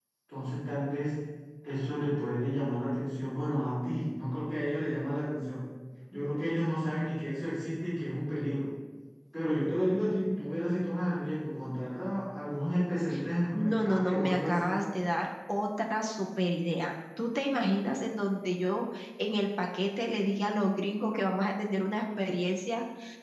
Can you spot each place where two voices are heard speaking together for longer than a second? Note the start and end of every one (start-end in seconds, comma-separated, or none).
13.5-14.8